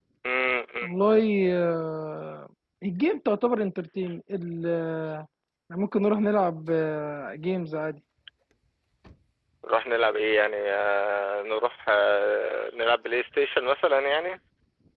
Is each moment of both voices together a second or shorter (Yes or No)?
Yes